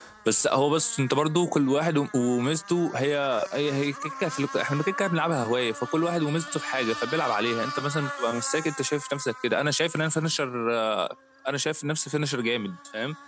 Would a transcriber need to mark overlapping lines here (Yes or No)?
No